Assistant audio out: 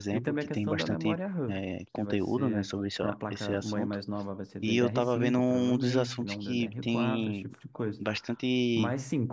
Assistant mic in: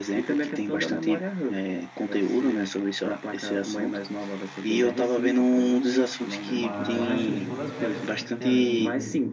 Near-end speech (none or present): present